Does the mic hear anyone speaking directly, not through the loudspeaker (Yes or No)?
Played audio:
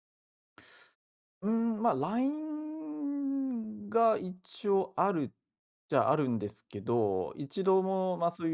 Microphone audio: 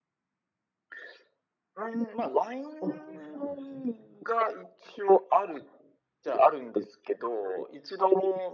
Yes